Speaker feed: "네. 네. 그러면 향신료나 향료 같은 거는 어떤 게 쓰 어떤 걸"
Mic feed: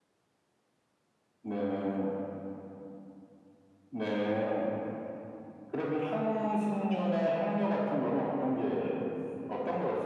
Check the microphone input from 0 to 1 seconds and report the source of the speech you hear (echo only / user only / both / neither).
neither